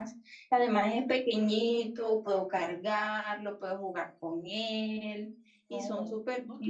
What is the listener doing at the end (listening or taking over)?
taking over